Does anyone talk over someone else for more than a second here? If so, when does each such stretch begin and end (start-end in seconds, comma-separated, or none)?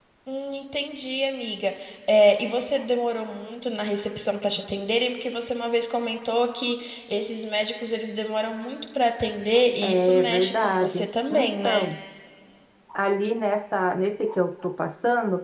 9.8-11.9